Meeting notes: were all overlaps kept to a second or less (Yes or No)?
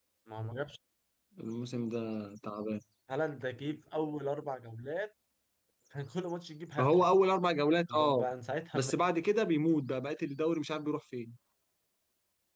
Yes